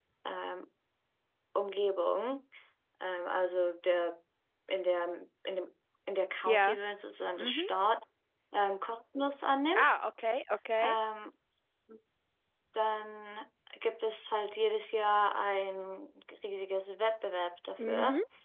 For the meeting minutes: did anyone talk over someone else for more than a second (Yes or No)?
No